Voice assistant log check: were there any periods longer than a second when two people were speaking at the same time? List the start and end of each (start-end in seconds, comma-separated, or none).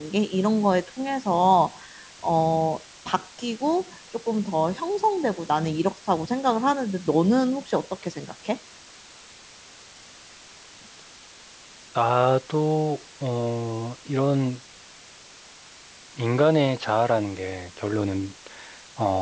none